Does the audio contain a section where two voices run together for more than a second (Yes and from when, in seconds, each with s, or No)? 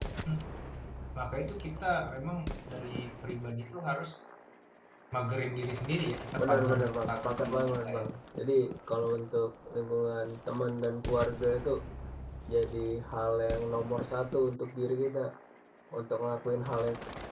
Yes, from 6.4 s